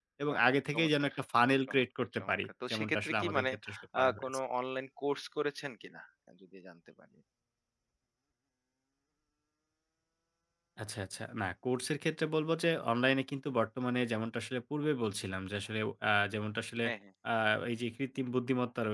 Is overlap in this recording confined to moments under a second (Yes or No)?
No